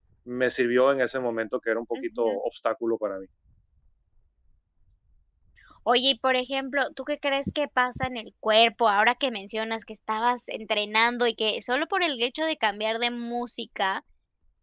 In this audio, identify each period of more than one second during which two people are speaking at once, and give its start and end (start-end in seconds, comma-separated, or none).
none